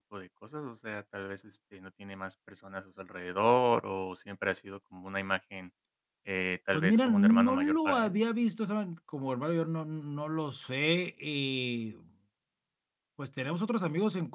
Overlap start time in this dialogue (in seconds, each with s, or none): 6.7 s